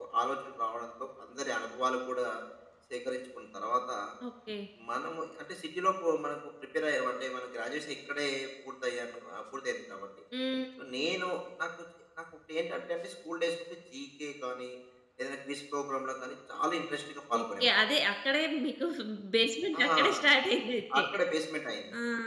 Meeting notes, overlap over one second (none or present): none